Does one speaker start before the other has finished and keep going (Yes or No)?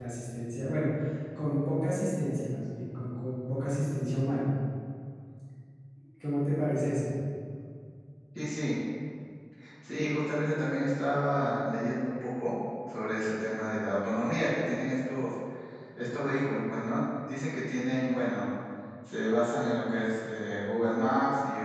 No